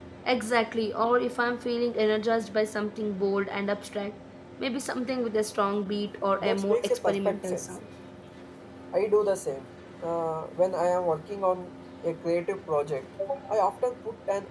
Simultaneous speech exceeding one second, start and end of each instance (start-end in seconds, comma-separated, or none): 6.4-7.6